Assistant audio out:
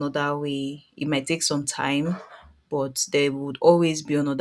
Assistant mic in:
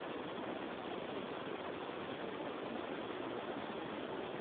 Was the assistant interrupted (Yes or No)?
No